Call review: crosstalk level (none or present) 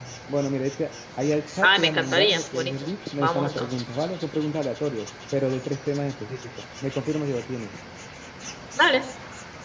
present